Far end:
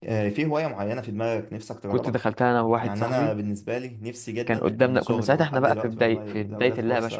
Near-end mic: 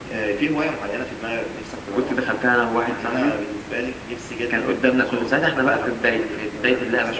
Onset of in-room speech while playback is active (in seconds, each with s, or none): none